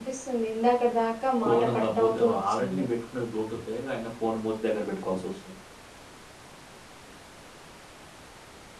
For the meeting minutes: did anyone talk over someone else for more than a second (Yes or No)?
Yes